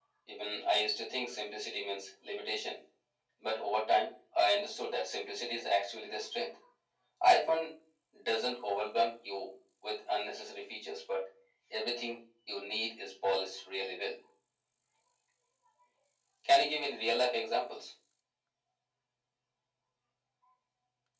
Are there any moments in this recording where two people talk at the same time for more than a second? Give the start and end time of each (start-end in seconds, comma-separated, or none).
none